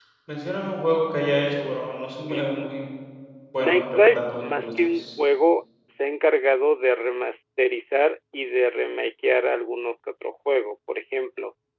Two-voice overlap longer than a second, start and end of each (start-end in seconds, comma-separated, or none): 3.6-5.0